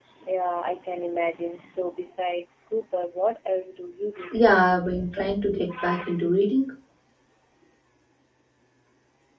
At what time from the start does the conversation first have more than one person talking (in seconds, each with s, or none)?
4.3 s